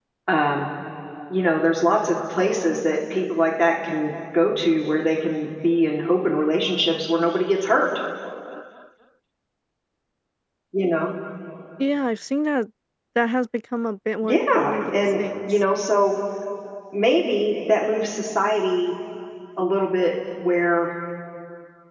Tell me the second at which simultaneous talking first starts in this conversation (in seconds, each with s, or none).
14.2 s